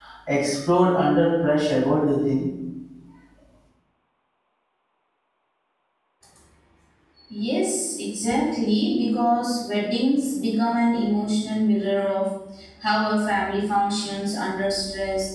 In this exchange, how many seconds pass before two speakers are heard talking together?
none

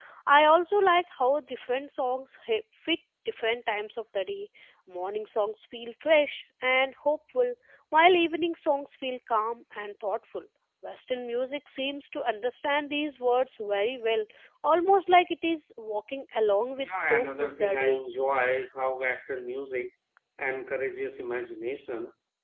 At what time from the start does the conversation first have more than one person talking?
16.8 s

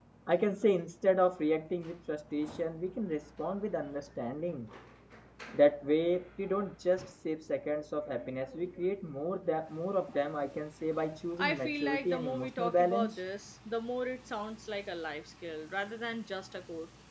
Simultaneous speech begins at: 11.4 s

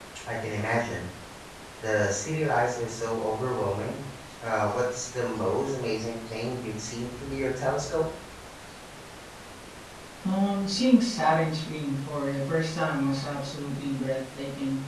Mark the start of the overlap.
none

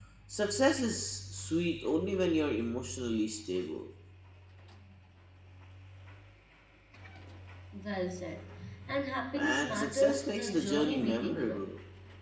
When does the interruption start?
9.3 s

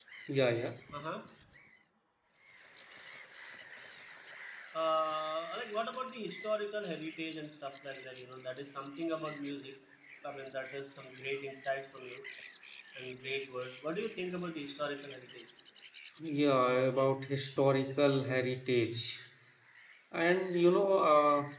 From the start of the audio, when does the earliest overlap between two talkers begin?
none

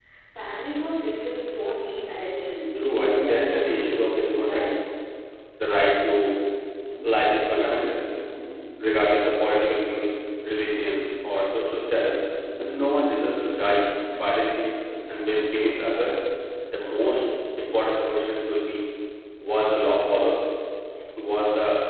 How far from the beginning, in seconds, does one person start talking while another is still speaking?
2.8 s

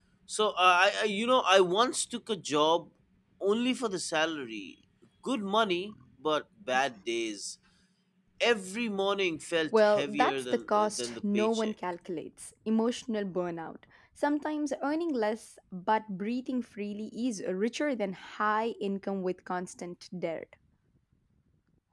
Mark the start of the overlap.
9.7 s

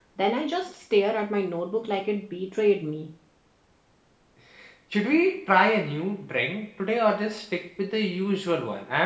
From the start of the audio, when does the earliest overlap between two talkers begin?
none

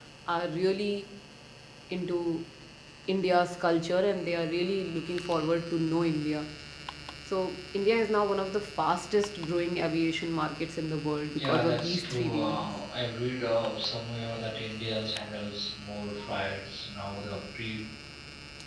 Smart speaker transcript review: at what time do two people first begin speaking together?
11.4 s

